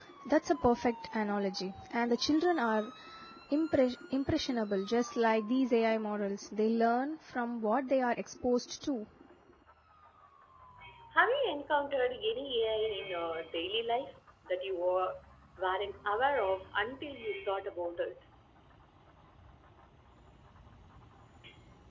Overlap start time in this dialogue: none

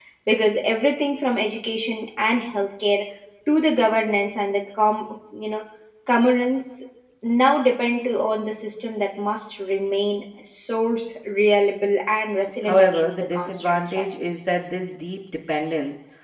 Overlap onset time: 12.7 s

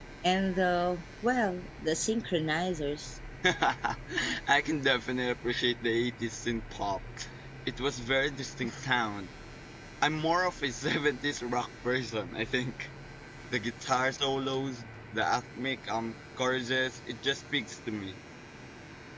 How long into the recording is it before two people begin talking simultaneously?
none

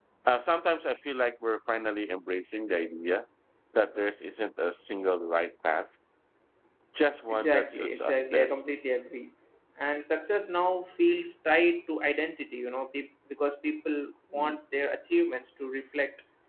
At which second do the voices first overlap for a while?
7.3 s

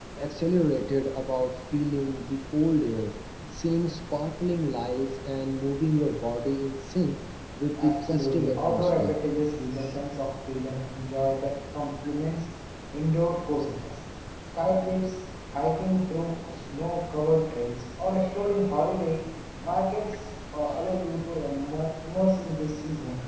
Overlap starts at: 7.8 s

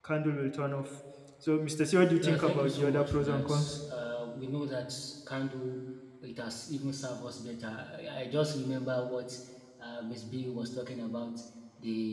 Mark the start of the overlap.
2.2 s

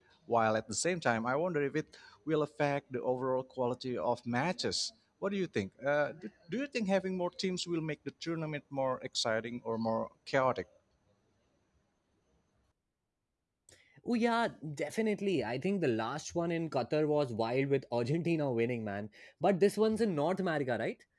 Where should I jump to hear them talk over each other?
none

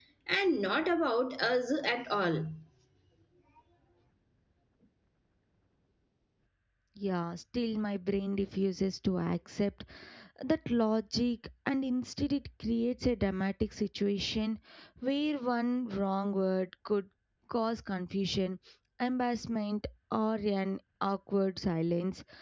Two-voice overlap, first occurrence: none

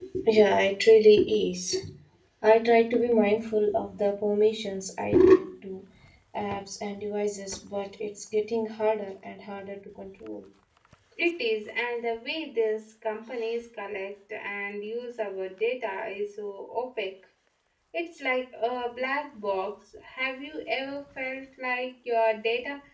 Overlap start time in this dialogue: none

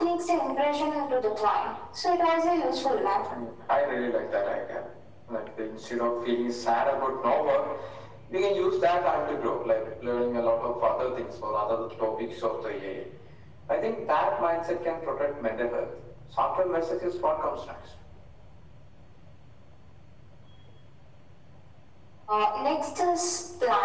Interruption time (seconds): none

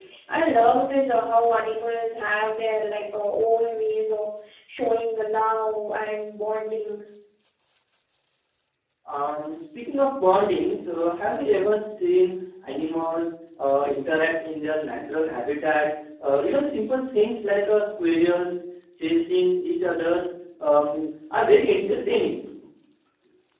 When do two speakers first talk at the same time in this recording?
none

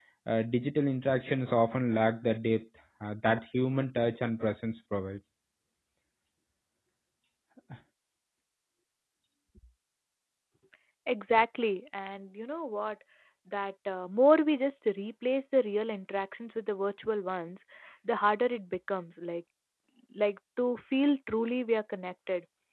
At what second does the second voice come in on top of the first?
none

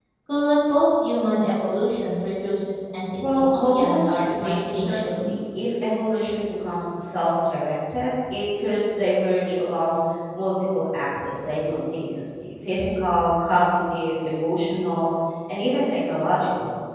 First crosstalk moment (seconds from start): 3.2 s

